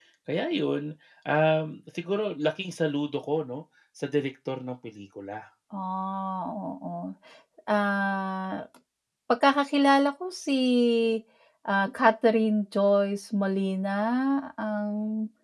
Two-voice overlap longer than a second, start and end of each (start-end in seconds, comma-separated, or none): none